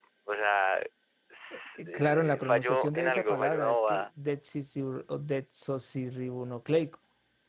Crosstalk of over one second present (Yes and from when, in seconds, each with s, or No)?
Yes, from 1.5 s